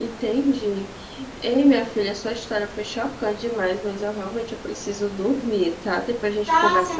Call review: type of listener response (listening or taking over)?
taking over